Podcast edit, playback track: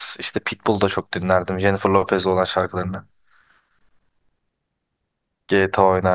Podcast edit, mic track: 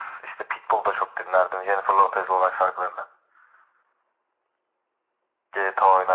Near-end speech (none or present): none